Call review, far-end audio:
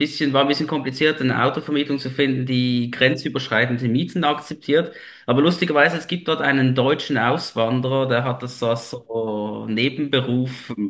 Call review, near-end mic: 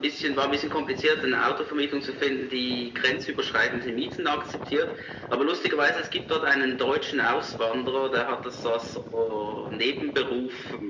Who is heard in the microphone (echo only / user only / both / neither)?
echo only